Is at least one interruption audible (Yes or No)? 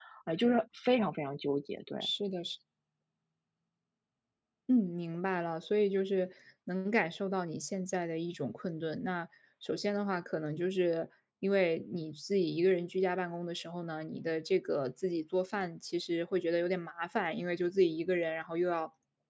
No